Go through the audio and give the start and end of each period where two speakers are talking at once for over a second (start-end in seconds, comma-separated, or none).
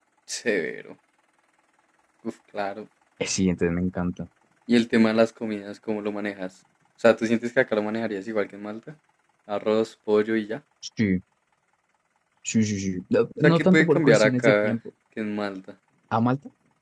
13.4-14.7